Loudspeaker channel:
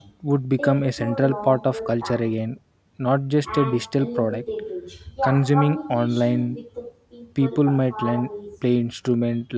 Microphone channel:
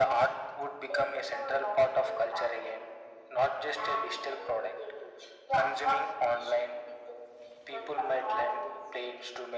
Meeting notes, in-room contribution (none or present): none